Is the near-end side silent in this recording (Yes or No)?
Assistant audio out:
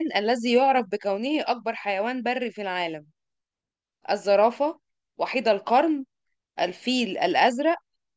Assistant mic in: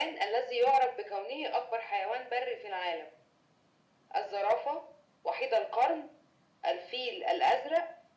Yes